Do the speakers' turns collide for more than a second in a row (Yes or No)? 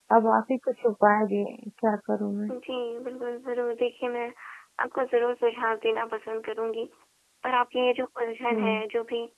No